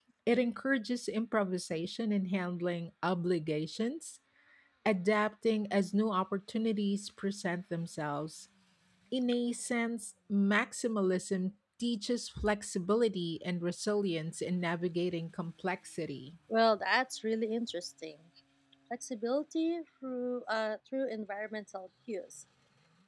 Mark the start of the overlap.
none

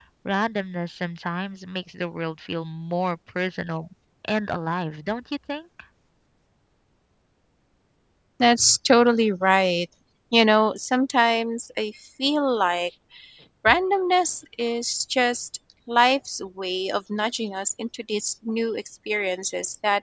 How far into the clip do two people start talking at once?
none

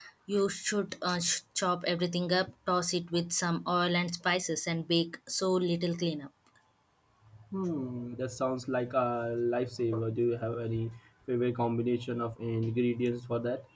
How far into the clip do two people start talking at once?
none

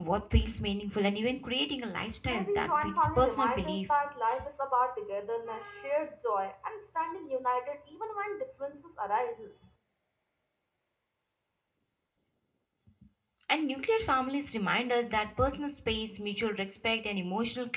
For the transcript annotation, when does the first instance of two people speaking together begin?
2.3 s

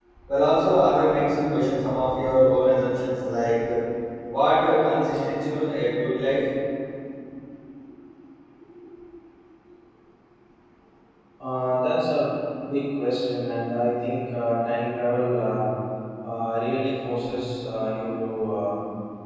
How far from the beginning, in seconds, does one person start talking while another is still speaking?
none

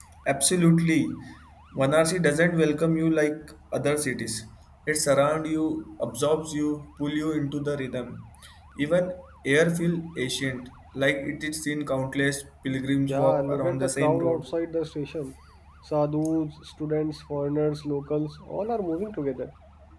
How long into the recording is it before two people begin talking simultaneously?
13.1 s

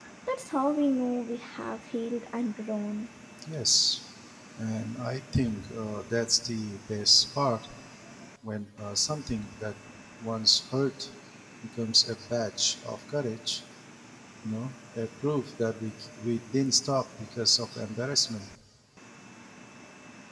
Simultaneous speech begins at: none

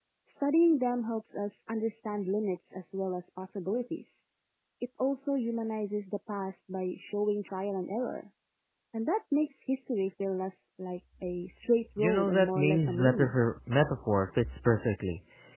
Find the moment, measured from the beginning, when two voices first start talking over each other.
12.0 s

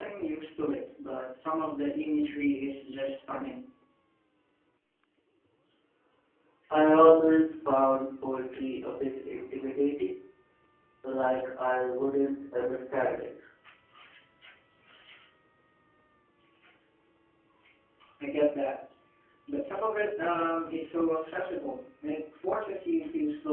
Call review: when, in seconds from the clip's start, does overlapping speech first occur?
none

